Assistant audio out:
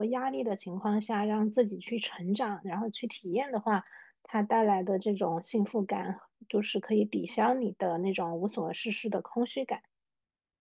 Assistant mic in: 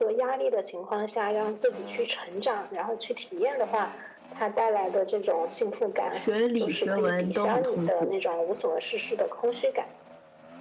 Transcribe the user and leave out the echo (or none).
学理学文都很痛苦，